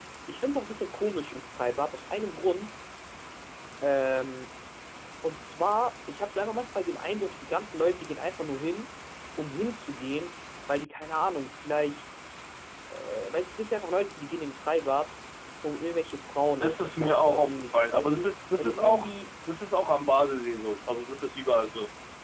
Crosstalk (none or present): present